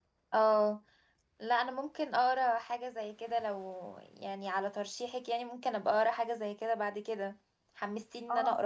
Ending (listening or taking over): taking over